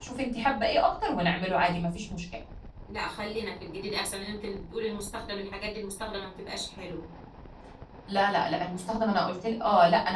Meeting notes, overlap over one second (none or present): none